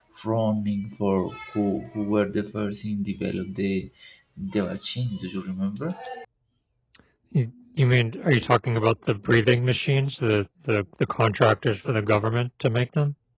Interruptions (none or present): none